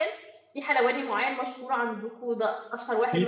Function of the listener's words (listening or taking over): taking over